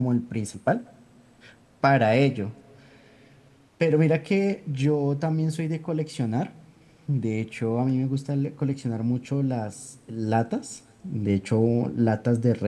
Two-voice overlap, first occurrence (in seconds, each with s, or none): none